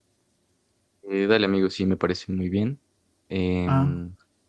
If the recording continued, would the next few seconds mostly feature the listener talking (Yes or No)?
No